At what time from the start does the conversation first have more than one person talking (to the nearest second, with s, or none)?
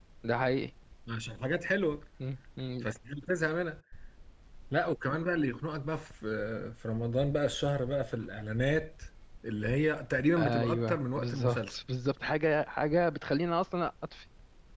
10 s